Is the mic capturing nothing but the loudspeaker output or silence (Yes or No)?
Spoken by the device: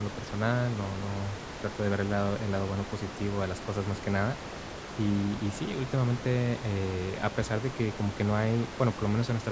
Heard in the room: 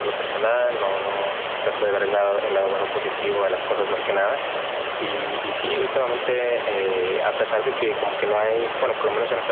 Yes